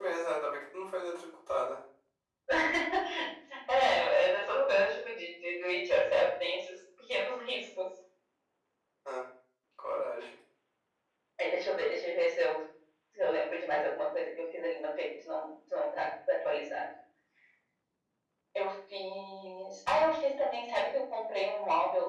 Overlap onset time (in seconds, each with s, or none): none